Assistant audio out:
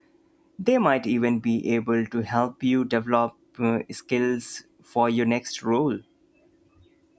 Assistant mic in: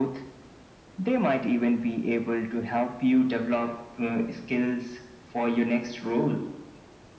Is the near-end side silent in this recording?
Yes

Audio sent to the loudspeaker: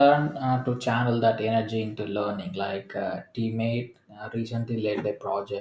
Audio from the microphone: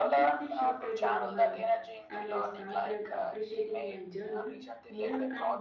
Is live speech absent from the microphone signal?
No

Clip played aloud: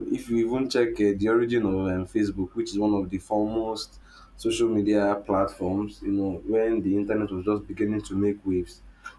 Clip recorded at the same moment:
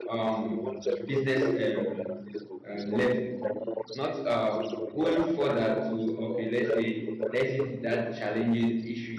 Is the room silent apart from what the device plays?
No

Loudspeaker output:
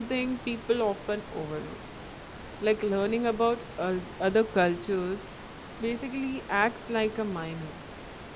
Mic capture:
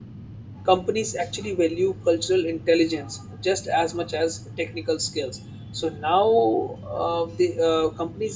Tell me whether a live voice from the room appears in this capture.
Yes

